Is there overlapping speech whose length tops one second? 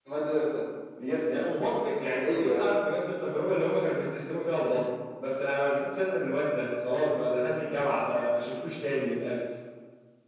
No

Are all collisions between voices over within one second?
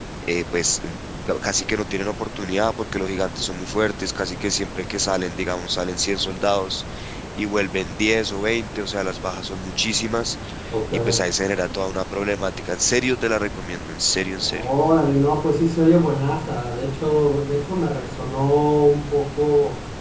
Yes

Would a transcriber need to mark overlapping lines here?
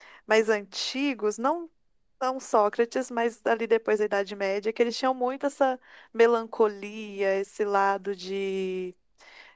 No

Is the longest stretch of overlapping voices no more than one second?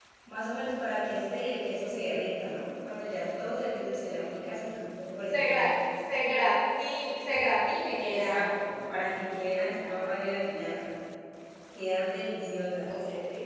Yes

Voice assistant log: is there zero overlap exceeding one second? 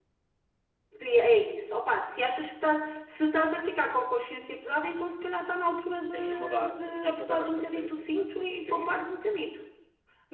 No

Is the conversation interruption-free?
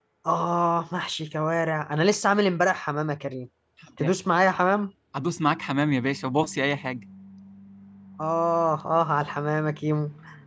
Yes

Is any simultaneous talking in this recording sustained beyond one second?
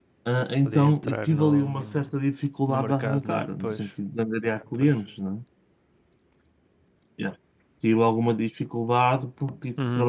Yes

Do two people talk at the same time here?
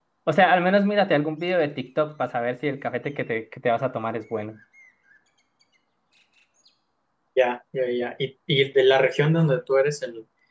No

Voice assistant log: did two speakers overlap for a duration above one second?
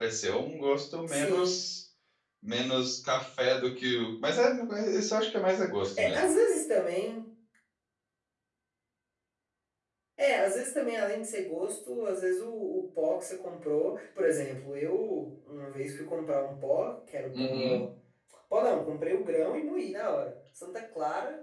No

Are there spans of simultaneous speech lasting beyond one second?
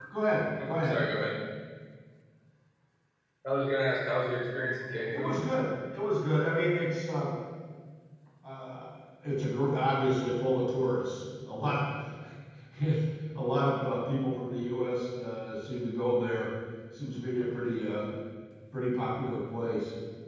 No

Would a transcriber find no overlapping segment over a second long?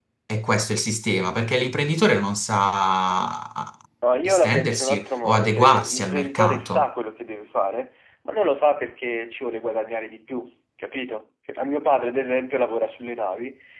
No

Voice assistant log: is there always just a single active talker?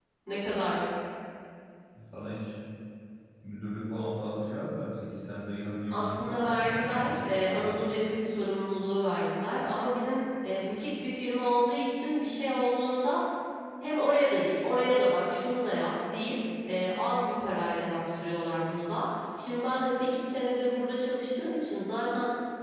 No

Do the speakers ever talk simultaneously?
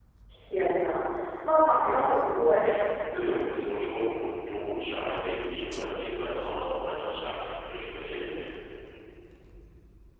No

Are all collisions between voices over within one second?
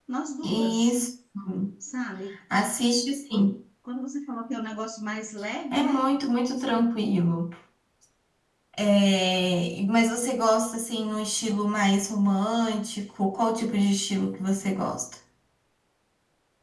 Yes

